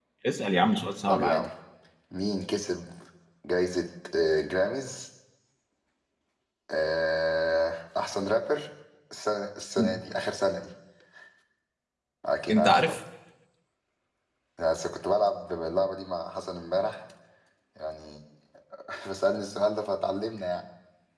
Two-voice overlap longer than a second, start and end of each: none

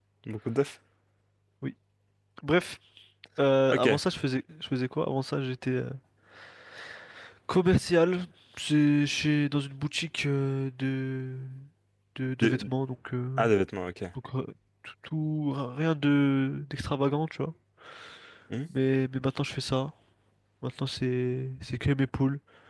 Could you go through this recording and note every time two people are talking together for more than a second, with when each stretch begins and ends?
none

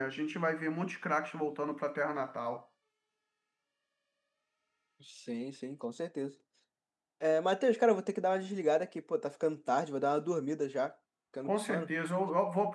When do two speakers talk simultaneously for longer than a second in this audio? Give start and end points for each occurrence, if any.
none

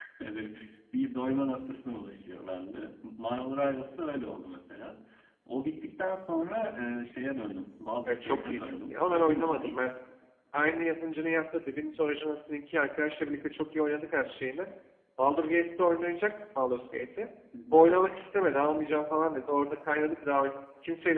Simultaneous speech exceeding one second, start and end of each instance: 8.1-9.9

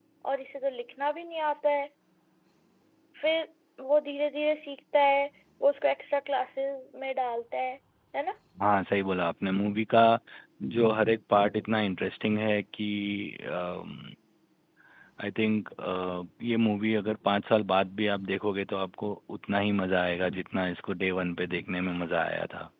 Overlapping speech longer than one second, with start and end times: none

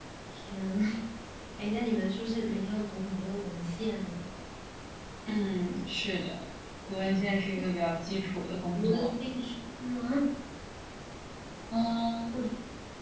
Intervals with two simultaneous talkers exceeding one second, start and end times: none

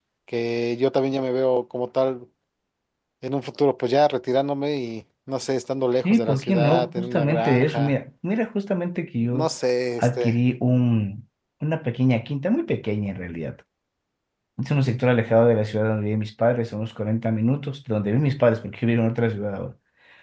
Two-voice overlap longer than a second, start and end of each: 6.0-7.9

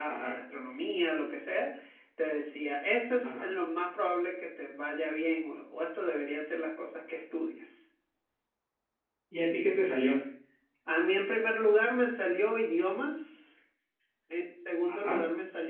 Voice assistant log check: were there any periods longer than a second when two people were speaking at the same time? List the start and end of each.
none

